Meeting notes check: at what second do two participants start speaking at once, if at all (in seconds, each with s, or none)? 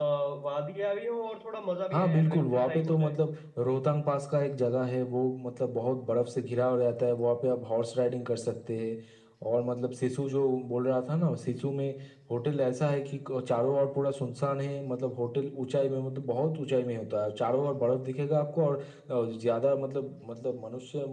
1.9 s